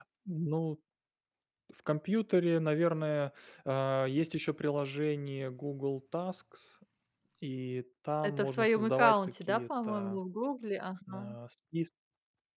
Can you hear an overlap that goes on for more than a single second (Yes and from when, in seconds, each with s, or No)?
Yes, from 8.2 s